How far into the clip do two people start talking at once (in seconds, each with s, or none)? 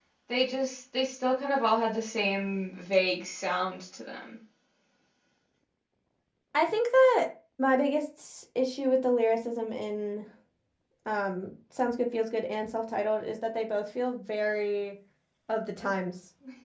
none